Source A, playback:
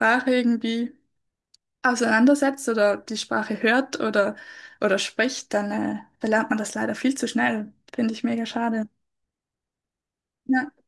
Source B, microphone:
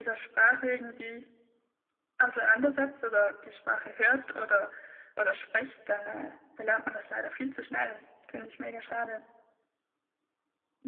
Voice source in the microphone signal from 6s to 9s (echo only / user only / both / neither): echo only